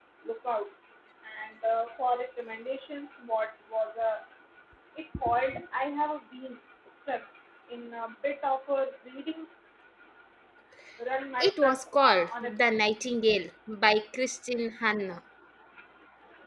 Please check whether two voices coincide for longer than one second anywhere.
Yes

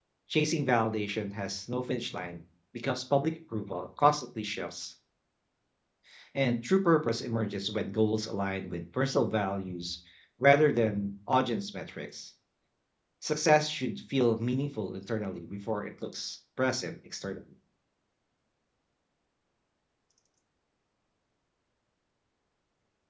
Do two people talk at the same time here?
No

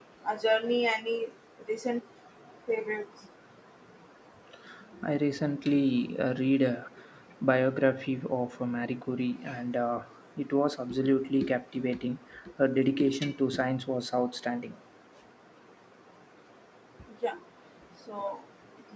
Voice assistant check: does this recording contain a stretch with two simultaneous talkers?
No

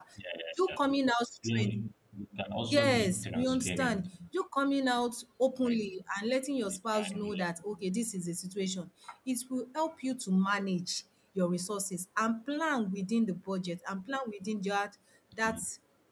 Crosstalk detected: Yes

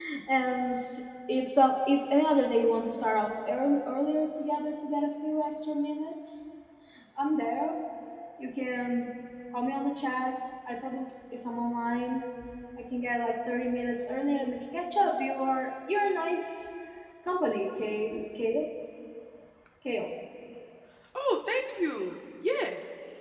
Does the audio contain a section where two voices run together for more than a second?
No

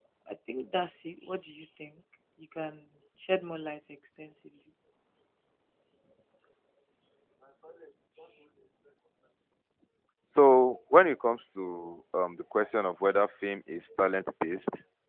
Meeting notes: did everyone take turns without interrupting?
Yes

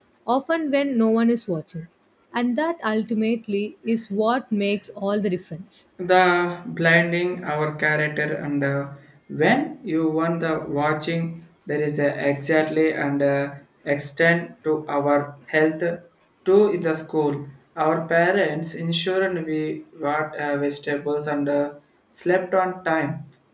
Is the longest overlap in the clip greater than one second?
No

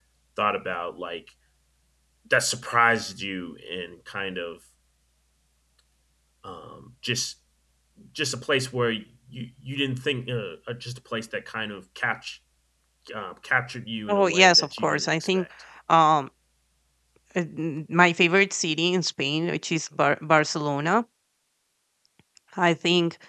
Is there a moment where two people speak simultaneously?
Yes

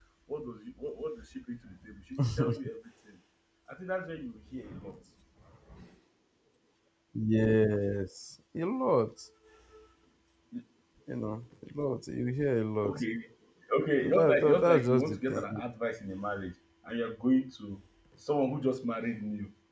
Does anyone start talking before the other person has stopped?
Yes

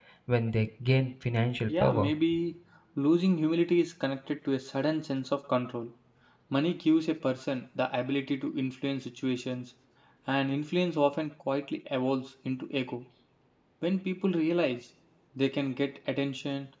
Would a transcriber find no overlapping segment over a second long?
Yes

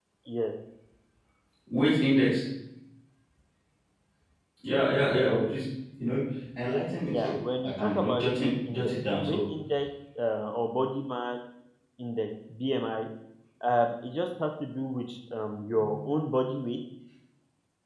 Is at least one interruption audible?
Yes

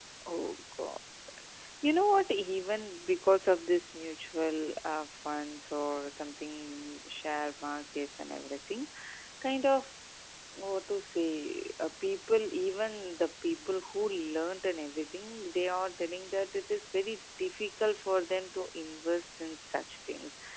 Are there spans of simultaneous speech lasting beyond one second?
No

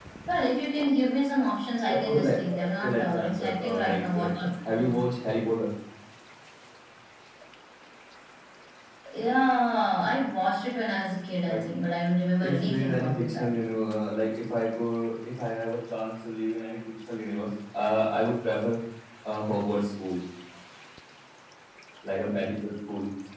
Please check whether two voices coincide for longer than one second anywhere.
Yes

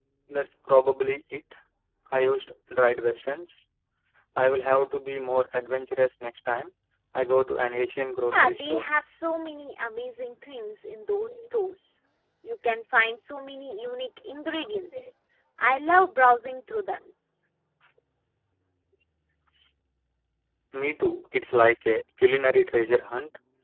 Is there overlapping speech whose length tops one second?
No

